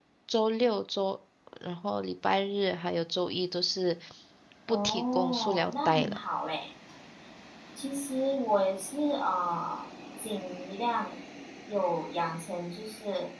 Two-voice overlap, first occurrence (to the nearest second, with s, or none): 5 s